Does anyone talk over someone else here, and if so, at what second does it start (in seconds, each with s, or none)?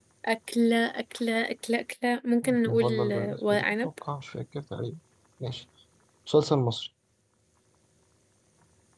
2.4 s